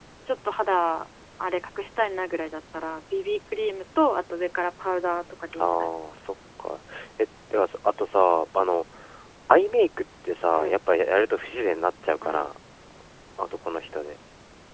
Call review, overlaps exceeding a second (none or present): none